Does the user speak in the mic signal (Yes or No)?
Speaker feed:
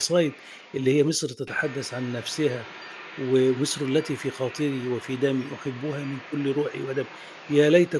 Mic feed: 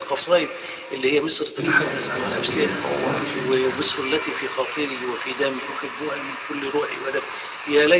Yes